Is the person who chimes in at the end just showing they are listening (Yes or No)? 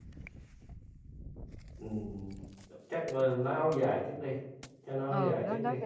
No